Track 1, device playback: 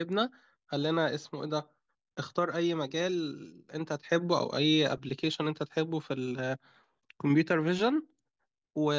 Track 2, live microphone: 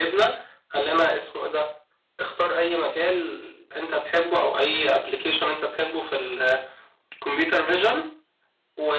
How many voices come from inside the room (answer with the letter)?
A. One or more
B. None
B